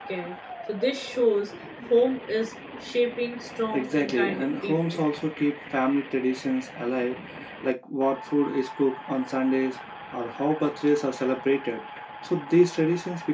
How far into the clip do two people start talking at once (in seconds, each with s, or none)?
3.7 s